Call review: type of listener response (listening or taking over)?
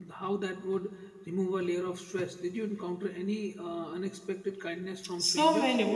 taking over